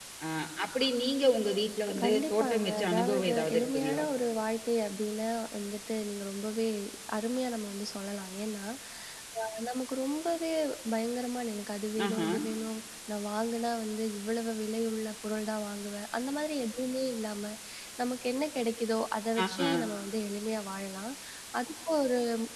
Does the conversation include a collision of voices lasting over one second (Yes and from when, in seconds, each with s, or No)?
Yes, from 2.0 s